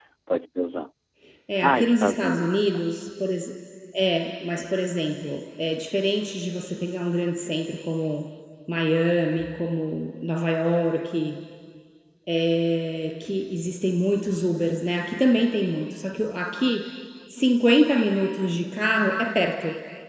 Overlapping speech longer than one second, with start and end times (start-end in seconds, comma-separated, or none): 1.6-2.8